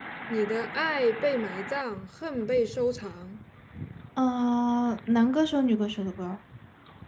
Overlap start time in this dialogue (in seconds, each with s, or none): none